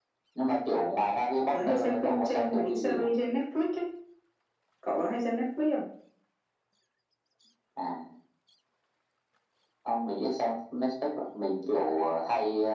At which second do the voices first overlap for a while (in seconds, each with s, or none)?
1.5 s